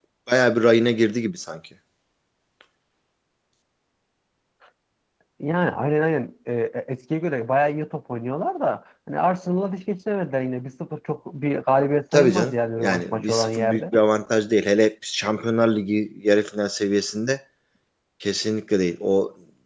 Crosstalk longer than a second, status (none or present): present